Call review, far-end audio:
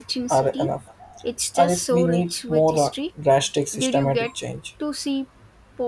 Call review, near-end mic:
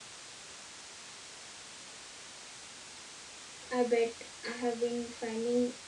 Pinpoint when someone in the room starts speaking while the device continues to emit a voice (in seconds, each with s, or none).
3.7 s